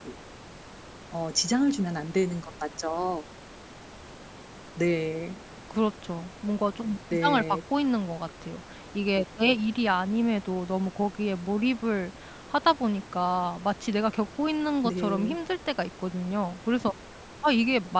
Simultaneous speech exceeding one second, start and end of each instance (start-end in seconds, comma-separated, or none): none